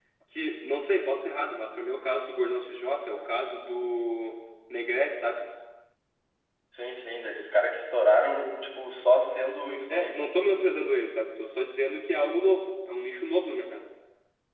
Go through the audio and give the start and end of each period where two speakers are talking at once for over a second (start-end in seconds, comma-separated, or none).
none